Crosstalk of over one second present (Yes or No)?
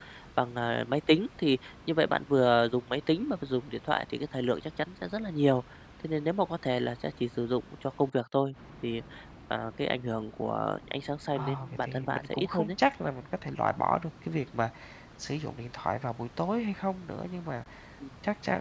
Yes